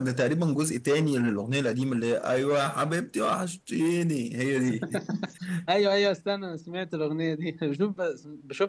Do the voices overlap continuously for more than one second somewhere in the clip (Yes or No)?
No